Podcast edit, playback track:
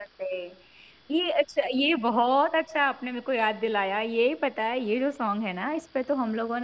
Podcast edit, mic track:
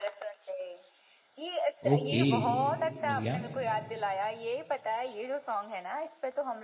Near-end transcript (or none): ओके, समझ गया,